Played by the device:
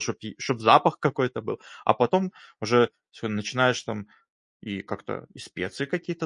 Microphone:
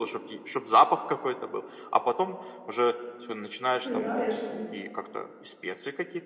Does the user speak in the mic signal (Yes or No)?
Yes